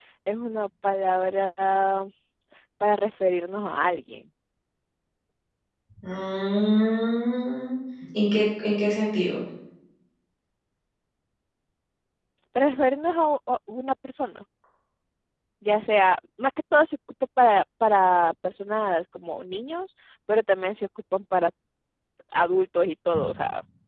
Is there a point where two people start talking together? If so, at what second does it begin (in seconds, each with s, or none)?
none